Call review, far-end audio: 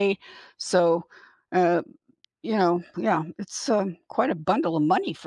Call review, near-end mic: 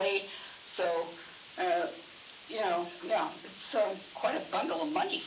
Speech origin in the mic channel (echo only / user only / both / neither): echo only